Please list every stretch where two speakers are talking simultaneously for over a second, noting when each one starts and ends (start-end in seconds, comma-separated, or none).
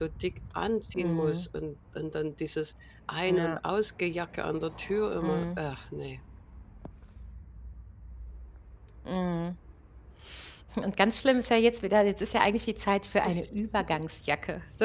none